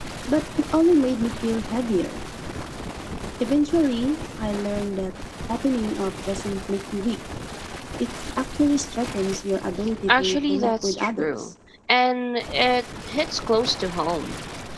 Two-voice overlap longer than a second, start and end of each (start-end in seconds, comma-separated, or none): 10.1-11.5